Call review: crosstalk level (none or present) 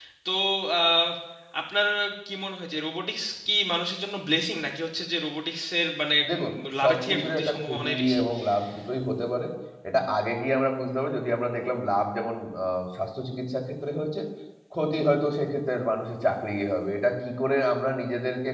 present